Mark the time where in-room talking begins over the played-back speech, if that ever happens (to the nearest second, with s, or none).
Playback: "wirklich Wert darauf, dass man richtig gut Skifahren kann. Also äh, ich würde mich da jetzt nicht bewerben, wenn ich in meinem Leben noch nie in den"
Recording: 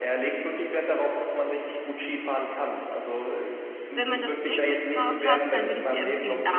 4 s